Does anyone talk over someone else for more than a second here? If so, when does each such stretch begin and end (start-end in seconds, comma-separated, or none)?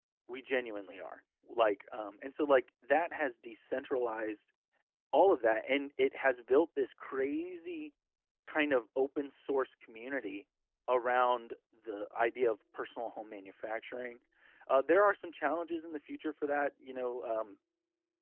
none